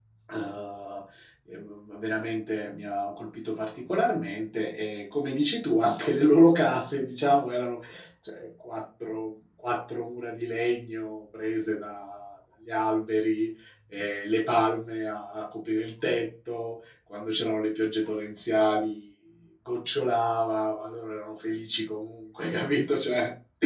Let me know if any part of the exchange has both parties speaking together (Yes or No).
No